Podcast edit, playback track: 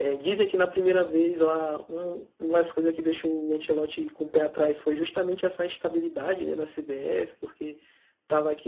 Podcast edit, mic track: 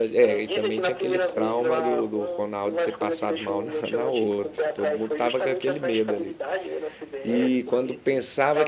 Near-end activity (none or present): present